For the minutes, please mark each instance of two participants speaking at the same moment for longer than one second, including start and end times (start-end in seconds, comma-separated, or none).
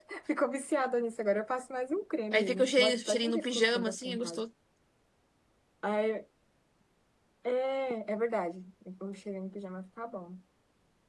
2.3-4.4